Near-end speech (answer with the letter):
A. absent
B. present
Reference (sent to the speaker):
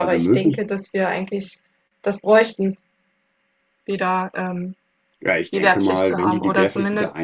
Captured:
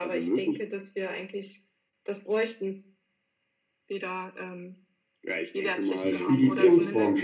B